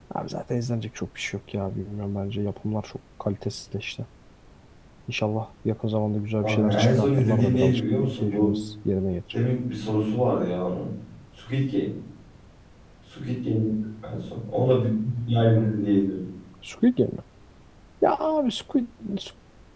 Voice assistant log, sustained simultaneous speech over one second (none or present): present